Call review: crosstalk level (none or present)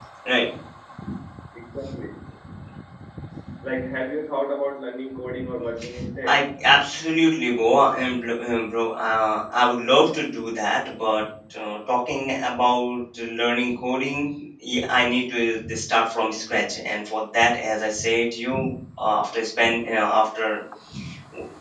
none